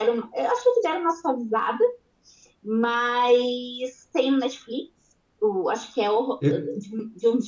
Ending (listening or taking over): listening